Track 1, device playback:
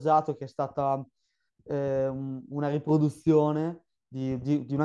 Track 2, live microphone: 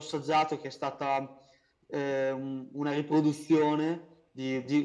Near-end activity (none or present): none